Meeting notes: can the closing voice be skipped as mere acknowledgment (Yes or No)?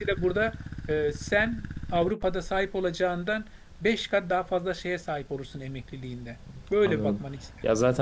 No